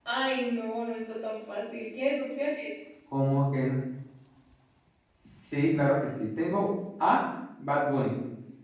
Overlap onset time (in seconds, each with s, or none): none